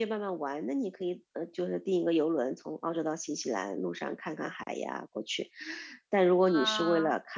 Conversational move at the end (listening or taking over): listening